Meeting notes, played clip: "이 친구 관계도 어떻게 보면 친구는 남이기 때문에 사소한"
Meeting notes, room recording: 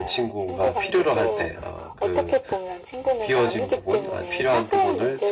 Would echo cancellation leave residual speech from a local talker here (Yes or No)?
Yes